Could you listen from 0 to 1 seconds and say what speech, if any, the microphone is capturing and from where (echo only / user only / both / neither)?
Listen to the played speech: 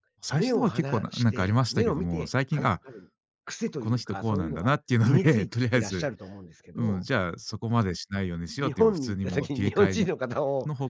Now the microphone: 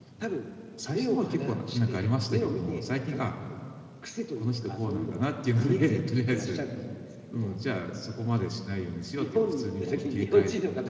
echo only